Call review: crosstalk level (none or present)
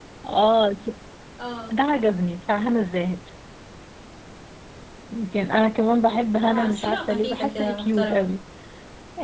present